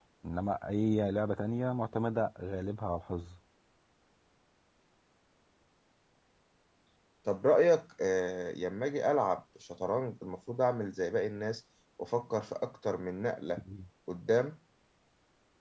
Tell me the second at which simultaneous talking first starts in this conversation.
none

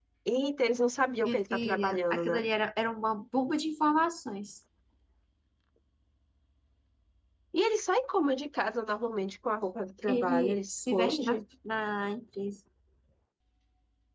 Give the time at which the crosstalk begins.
1.2 s

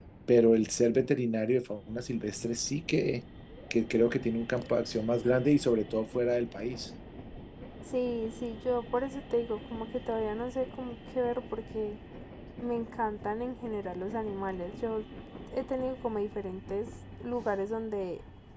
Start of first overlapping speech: none

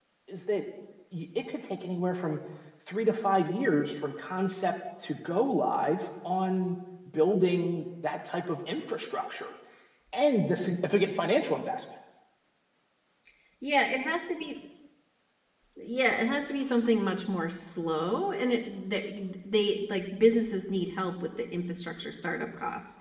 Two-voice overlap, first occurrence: none

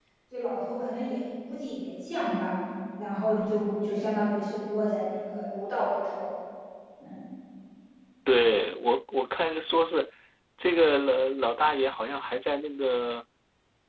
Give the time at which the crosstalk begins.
none

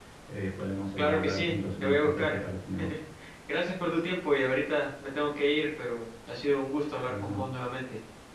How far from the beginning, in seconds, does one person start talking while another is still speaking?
1.0 s

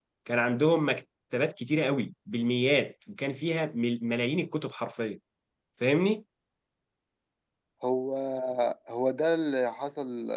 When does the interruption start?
none

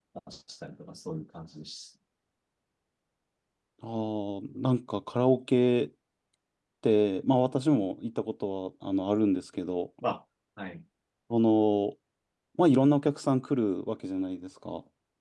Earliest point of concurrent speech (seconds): none

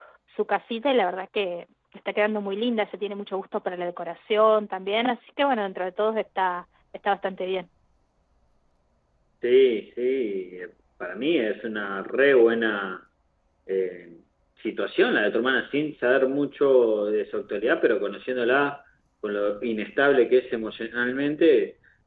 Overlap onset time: none

